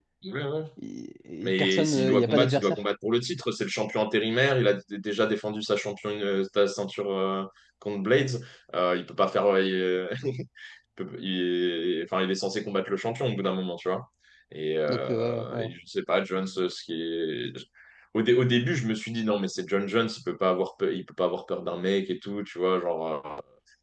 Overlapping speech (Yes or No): Yes